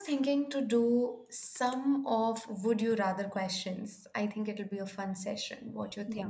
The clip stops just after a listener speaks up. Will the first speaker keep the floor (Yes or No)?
No